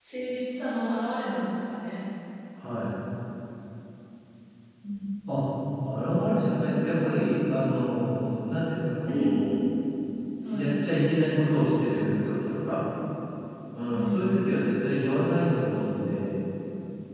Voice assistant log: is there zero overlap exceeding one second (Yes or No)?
Yes